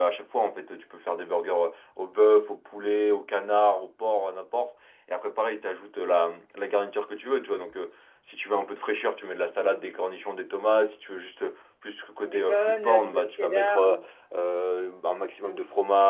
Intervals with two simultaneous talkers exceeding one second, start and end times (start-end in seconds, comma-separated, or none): 12.2-14.0